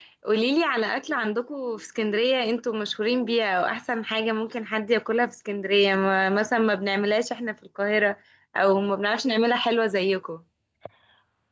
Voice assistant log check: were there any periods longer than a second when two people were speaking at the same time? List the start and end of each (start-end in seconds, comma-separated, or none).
none